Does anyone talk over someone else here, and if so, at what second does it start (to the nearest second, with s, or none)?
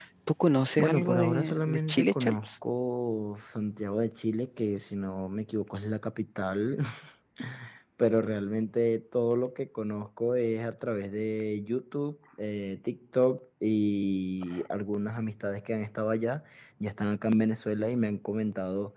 1 s